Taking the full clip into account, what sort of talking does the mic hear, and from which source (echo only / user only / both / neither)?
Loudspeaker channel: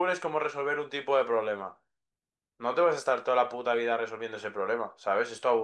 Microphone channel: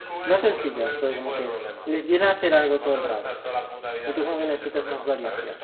both